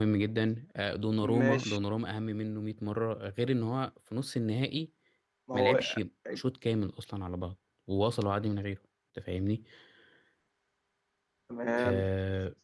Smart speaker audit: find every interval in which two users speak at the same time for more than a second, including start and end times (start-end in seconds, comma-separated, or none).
none